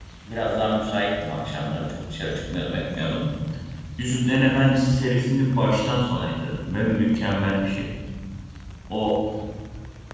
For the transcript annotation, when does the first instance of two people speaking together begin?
none

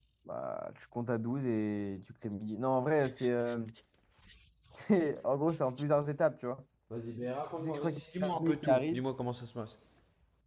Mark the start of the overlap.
7.6 s

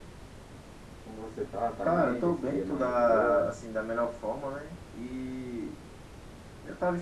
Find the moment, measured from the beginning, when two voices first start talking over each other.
1.8 s

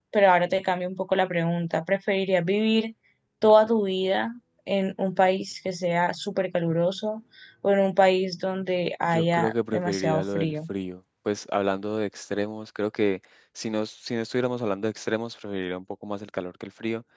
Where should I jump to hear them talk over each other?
9.0 s

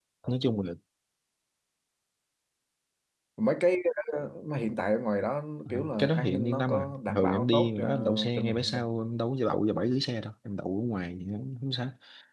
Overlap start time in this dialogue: 5.7 s

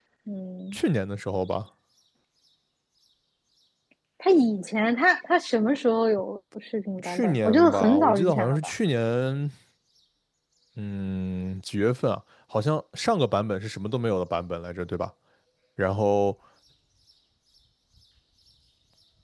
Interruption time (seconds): 7.0 s

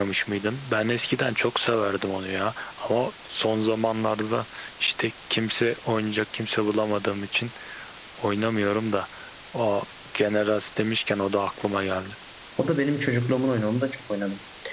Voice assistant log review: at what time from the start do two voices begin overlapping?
none

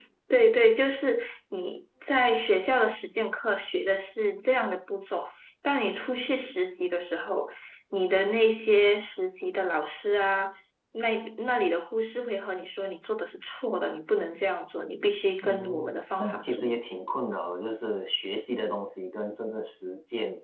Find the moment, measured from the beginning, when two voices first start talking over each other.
15.4 s

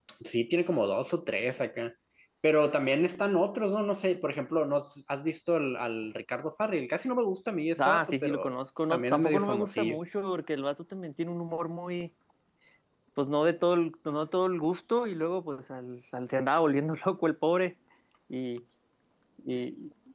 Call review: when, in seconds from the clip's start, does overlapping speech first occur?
7.8 s

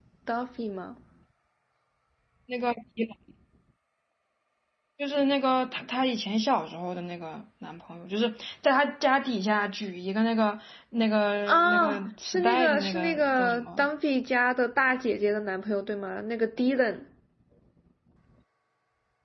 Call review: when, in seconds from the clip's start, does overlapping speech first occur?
11.5 s

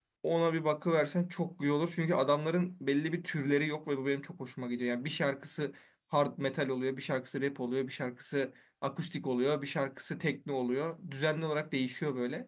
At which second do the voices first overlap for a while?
none

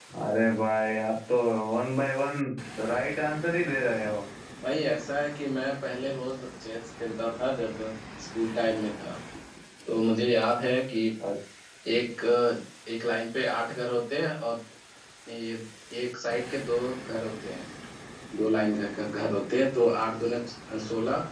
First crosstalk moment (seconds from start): none

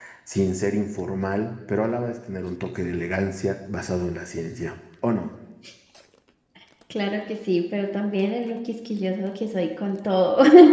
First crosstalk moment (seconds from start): none

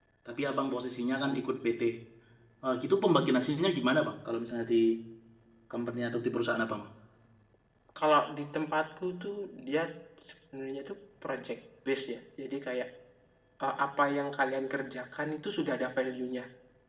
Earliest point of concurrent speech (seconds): none

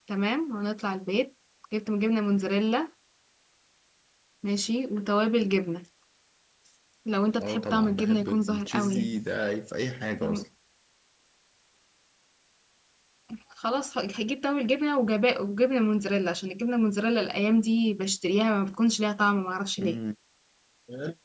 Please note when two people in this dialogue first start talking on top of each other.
7.4 s

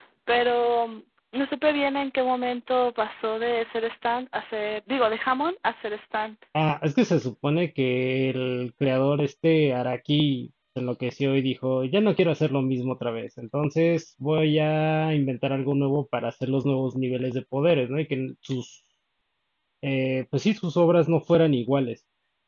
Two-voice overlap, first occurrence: none

